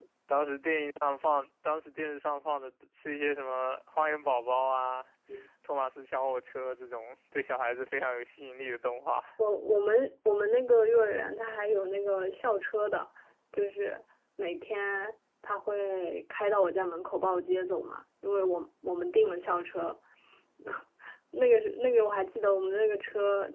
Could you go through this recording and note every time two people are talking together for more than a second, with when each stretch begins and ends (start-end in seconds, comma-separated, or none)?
none